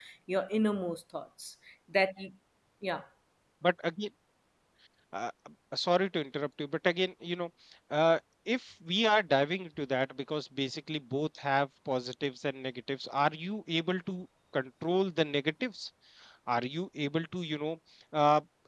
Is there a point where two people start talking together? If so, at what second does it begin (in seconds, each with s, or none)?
none